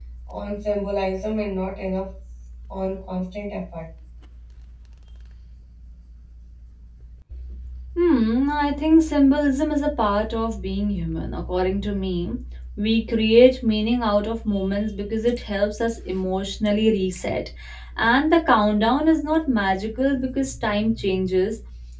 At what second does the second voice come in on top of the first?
none

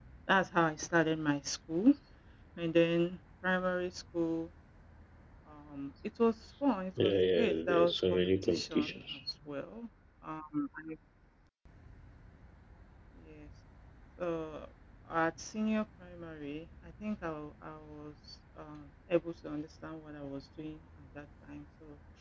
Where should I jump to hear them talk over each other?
7.0 s

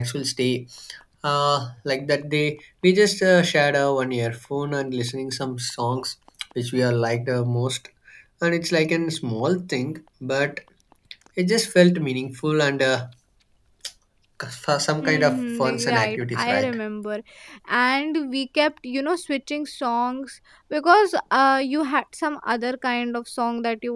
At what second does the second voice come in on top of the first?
15.0 s

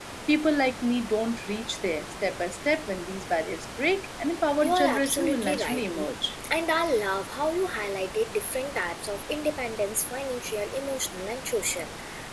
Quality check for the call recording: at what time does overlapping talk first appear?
4.6 s

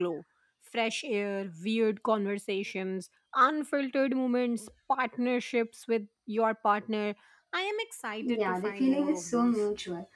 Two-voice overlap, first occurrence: 8.2 s

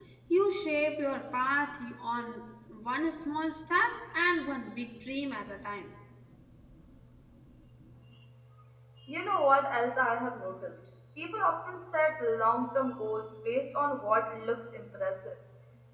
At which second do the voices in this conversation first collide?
none

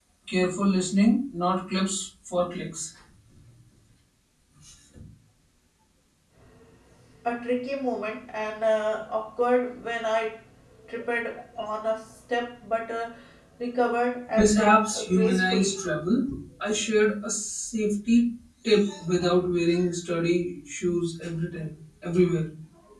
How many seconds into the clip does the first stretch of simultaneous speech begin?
14.4 s

